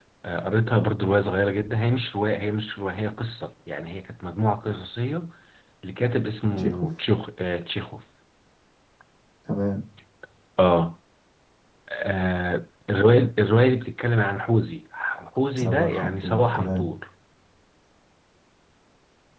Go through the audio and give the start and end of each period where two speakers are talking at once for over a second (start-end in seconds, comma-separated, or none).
15.6-16.8